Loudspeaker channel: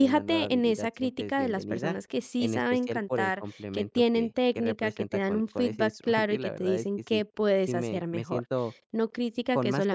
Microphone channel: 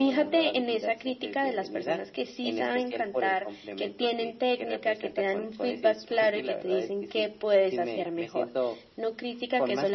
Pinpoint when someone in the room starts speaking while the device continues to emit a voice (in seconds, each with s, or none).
none